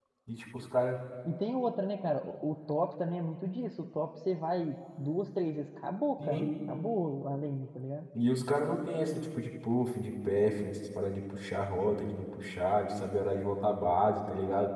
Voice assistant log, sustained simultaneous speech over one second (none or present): none